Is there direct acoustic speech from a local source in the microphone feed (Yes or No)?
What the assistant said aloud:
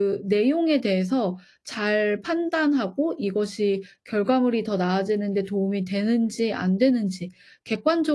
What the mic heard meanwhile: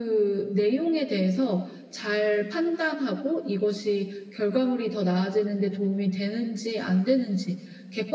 No